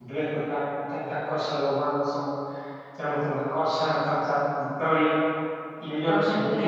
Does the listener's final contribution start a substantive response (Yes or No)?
No